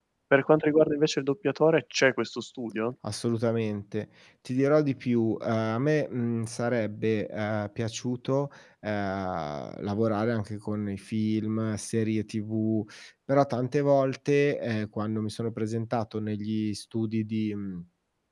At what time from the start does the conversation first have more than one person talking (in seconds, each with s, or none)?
none